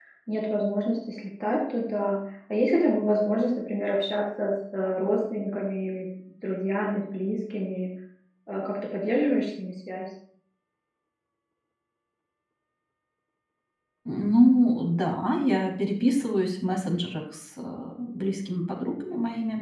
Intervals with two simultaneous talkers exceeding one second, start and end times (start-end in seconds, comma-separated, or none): none